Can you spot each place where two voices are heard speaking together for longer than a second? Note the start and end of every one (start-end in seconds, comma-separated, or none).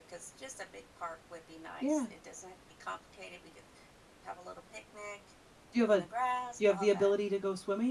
none